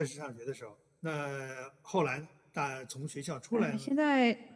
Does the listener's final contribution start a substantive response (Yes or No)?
Yes